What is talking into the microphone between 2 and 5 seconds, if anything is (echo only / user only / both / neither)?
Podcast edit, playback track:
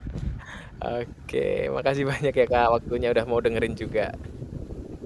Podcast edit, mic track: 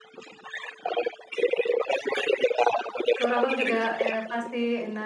both